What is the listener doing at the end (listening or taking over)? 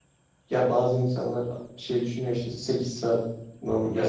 listening